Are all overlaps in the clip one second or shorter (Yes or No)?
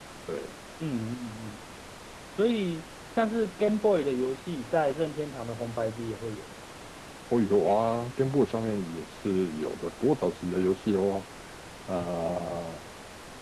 Yes